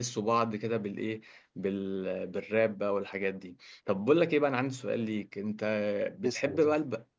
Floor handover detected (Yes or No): No